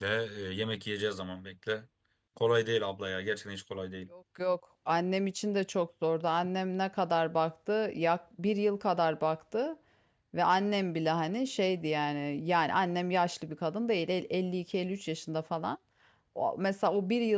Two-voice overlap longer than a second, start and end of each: none

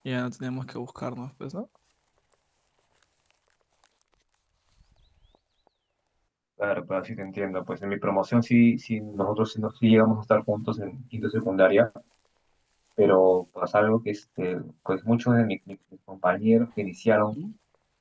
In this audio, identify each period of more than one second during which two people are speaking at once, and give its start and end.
none

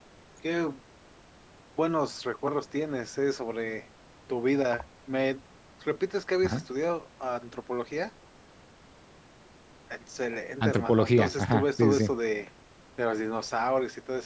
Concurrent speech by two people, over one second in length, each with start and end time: 10.6-12.1

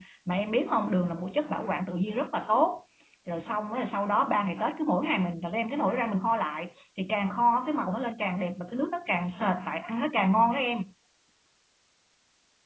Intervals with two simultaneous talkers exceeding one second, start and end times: none

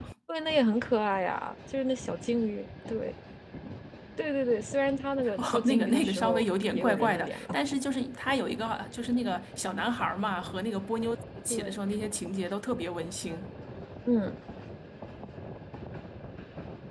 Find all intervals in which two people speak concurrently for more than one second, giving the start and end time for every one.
5.4-7.6

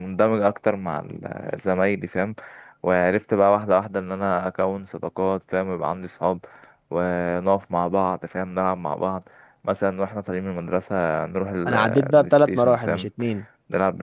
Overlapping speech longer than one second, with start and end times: 11.7-13.1

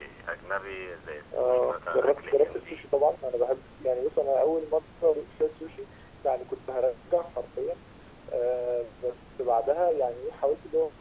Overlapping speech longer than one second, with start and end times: 1.3-2.8

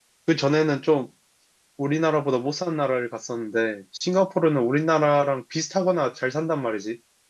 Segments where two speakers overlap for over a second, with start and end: none

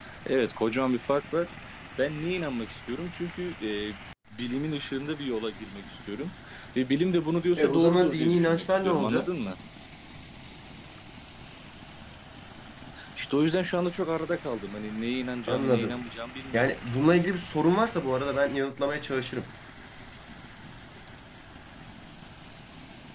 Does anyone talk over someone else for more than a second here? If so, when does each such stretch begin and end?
7.6-9.3

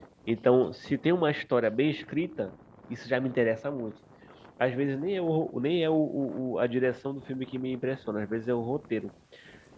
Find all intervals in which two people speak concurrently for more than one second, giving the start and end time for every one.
none

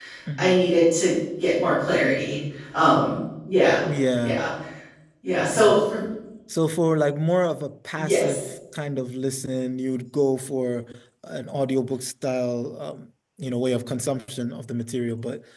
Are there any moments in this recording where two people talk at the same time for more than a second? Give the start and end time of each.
none

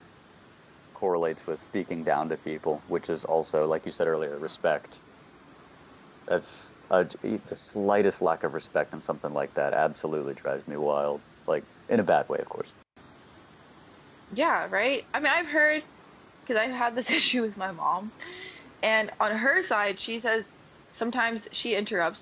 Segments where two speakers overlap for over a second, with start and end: none

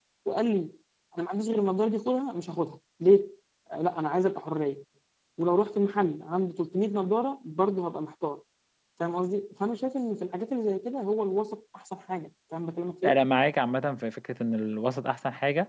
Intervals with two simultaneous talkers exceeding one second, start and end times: none

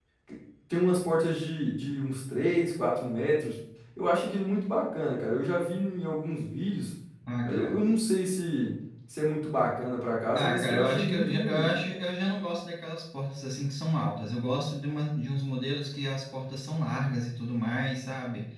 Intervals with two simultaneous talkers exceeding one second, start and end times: 10.3-11.7

